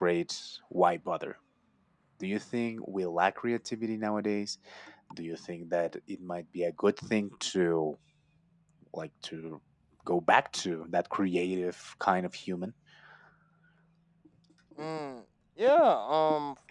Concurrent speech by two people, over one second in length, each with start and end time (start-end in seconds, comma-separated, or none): none